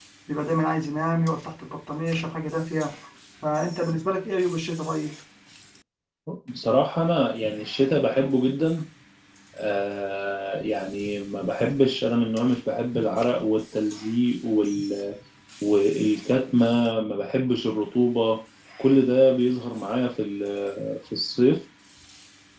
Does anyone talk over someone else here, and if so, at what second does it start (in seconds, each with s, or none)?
none